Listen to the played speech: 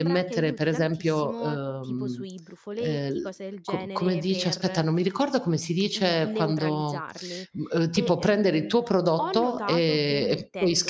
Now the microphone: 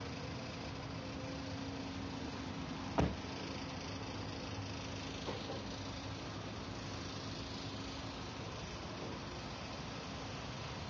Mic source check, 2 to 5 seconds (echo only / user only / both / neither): neither